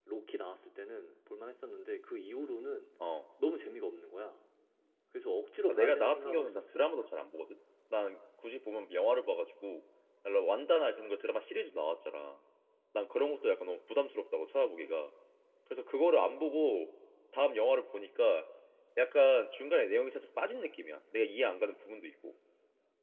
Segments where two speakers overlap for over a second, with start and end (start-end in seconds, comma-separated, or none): 5.7-6.9